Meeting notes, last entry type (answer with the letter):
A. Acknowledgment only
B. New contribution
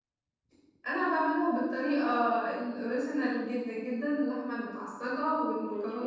A